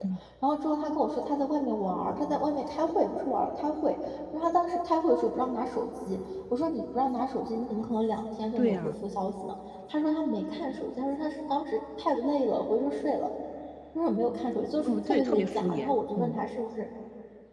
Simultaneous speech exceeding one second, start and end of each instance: 14.8-16.4

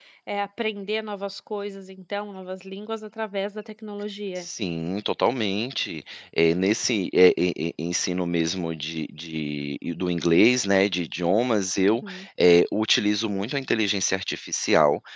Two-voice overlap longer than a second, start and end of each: none

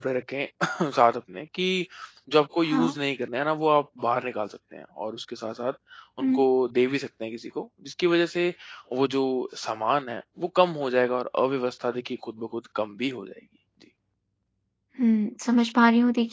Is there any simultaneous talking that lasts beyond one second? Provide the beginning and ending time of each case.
none

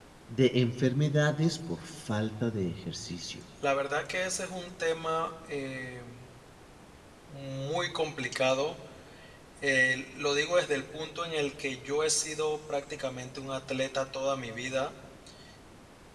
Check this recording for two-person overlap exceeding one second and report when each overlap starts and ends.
none

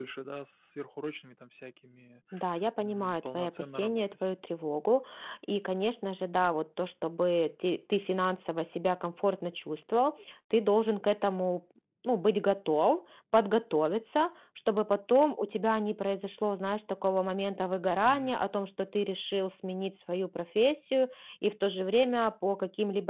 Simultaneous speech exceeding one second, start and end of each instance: 2.8-4.2

